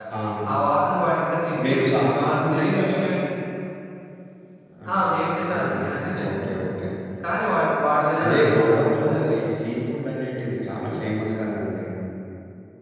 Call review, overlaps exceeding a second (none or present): present